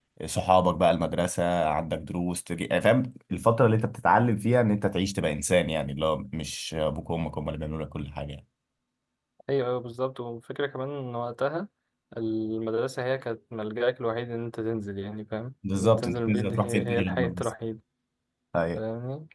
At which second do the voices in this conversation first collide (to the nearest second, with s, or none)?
16 s